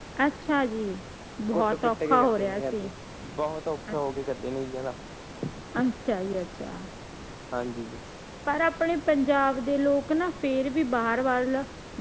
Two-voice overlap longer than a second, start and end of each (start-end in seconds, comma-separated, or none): 1.5-2.9